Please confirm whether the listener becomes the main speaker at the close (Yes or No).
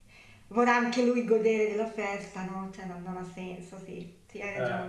Yes